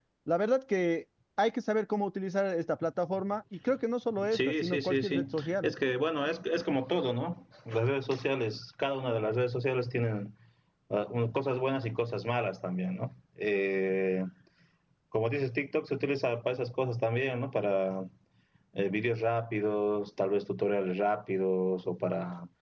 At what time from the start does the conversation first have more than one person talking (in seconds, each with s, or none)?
4.2 s